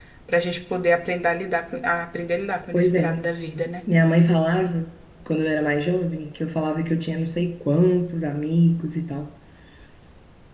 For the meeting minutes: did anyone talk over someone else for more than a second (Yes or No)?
No